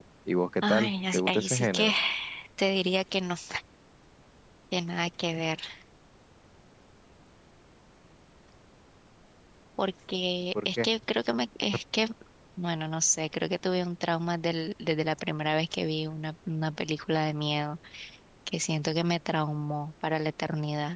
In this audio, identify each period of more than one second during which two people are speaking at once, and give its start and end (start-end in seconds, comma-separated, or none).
0.6-1.9